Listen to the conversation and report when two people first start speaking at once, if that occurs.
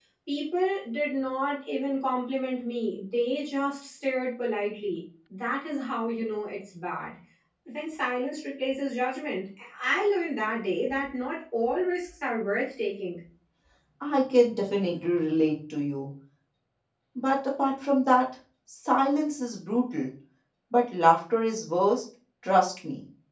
none

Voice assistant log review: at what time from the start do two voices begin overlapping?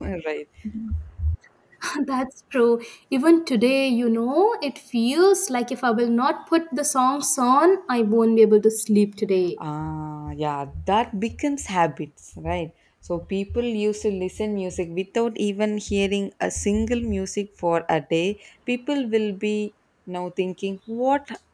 none

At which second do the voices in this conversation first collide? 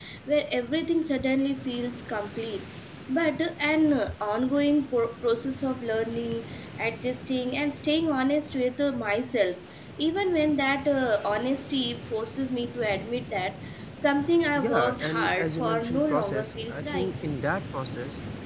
14.6 s

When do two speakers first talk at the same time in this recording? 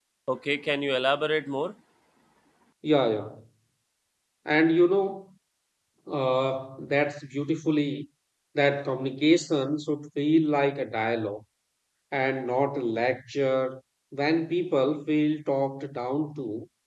none

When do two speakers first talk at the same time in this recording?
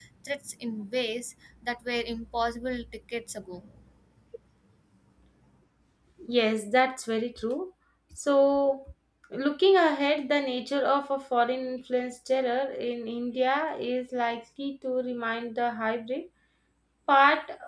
none

